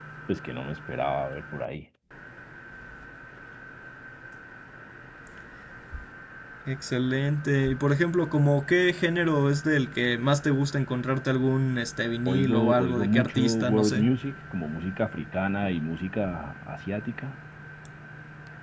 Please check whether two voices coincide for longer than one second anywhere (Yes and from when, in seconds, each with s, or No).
Yes, from 12.3 s